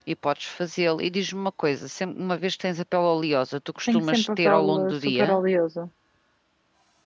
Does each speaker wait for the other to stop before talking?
No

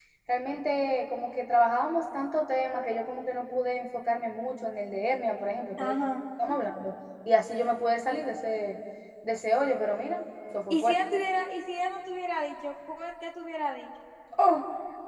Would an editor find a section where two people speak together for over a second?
No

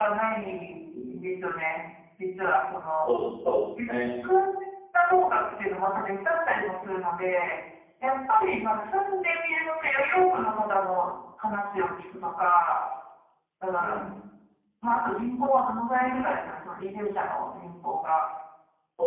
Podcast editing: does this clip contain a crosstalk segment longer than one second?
No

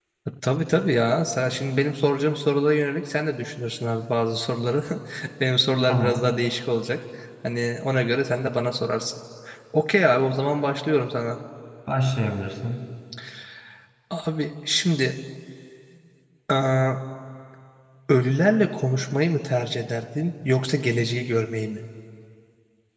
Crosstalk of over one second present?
No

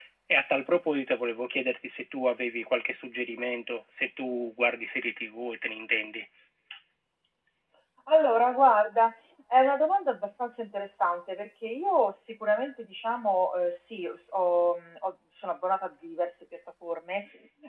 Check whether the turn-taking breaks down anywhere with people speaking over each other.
No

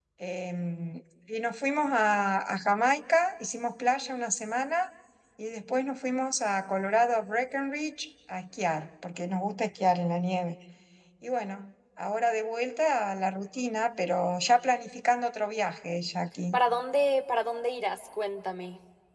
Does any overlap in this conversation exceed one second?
No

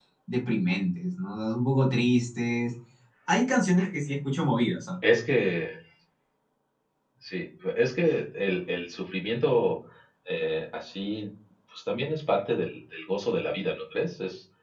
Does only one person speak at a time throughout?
Yes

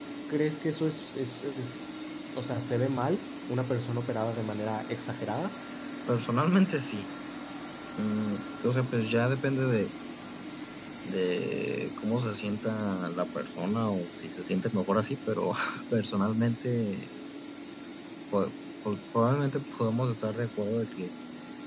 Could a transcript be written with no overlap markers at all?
Yes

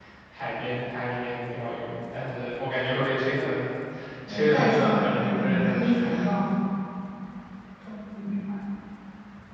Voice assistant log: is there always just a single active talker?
No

